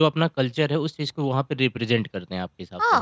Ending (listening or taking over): taking over